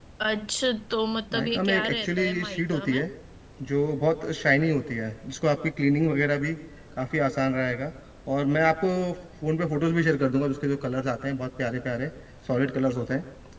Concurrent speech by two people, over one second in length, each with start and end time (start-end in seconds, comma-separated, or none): 1.3-3.0